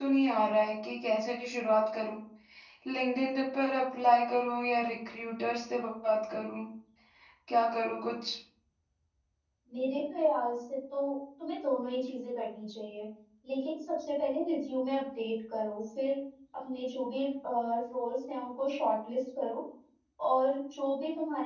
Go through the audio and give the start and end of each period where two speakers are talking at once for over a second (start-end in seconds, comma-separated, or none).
none